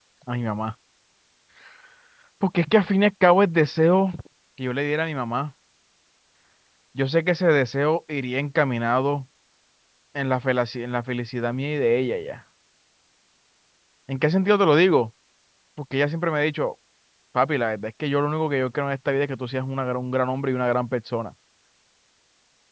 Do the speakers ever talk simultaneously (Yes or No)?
No